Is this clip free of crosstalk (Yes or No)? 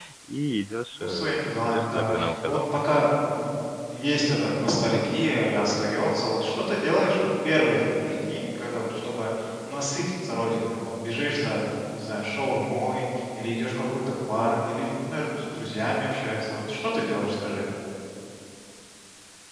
No